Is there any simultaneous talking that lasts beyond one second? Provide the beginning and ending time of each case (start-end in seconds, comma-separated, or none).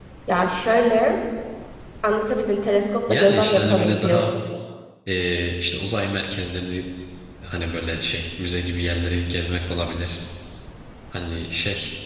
3.1-4.3